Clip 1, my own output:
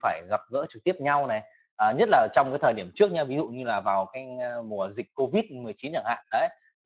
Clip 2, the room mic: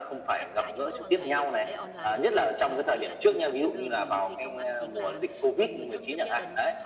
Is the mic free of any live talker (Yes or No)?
No